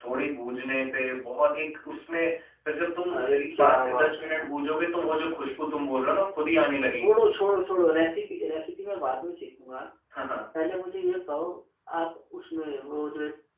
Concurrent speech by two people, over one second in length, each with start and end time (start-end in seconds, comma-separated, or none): 3.2-4.5